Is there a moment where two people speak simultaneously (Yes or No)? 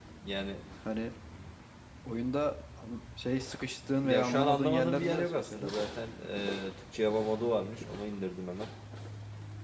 Yes